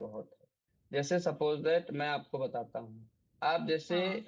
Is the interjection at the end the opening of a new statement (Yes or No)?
No